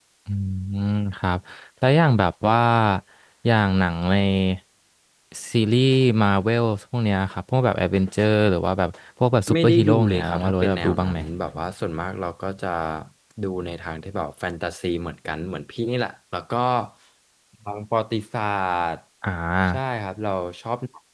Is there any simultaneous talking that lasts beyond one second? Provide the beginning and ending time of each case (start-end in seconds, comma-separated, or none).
9.5-11.2